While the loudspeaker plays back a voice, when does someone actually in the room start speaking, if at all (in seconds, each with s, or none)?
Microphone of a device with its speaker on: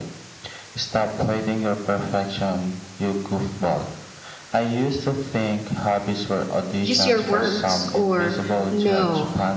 6.8 s